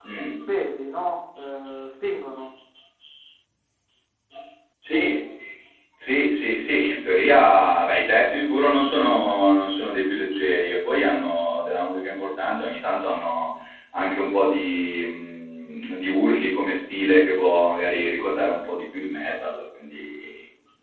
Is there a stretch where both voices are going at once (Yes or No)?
No